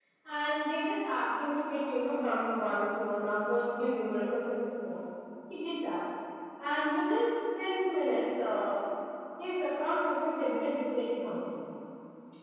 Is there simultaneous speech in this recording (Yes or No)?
No